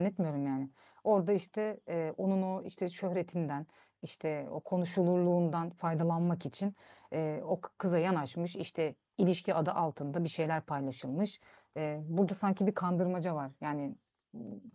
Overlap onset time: none

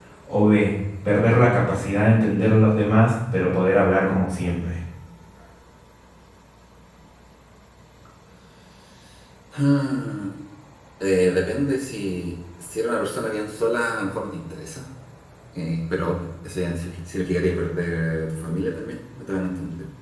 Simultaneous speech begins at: none

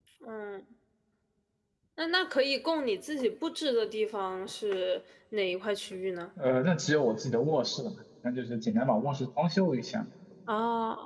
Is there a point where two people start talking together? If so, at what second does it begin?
none

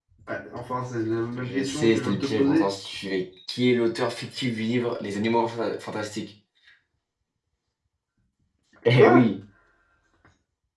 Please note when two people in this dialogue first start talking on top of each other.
1.4 s

